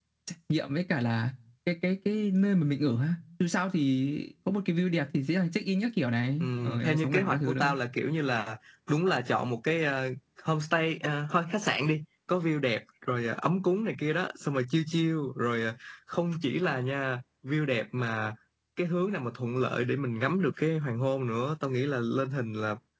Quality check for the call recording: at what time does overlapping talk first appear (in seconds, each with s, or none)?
6.4 s